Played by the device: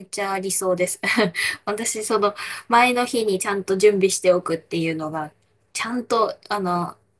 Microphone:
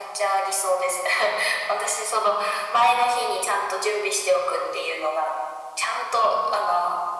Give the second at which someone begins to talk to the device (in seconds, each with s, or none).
none